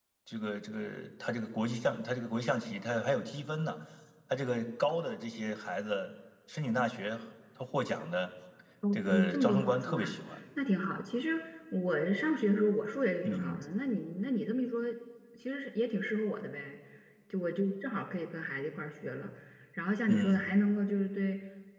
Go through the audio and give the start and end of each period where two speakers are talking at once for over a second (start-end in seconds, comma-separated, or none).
8.9-10.2